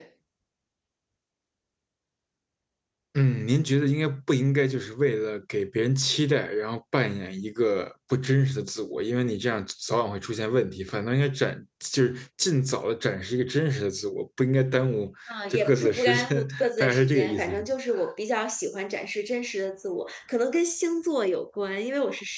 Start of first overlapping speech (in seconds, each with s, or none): 15.5 s